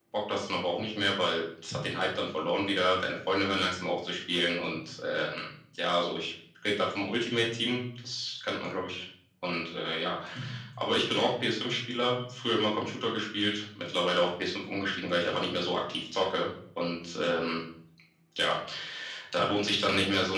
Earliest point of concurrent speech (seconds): none

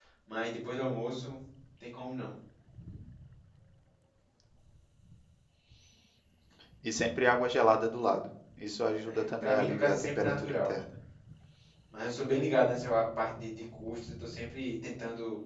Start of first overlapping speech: 9.1 s

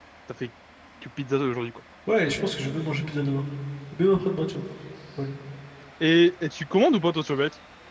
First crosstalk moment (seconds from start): none

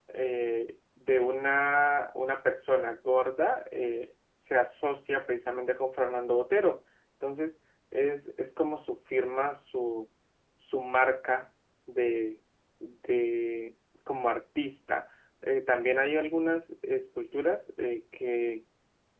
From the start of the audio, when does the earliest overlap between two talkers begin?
none

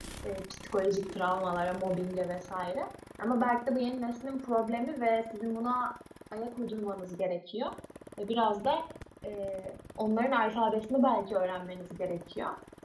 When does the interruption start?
none

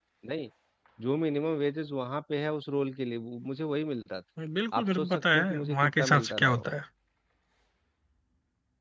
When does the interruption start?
4.8 s

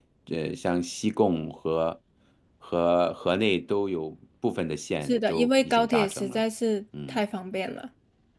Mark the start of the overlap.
5.0 s

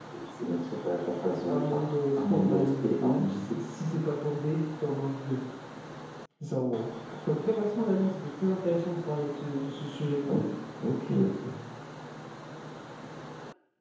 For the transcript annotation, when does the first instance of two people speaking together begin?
1.5 s

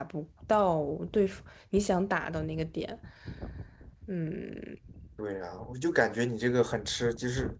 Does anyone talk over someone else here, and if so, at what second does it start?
none

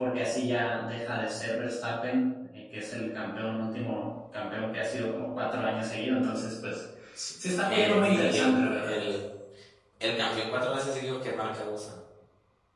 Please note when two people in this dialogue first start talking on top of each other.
7.6 s

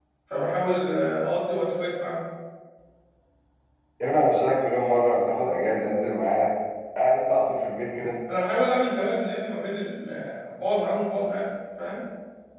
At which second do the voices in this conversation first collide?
none

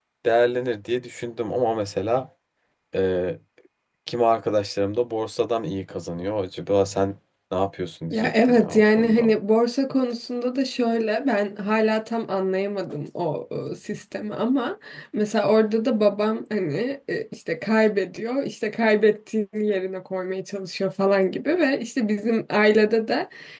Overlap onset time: 8.1 s

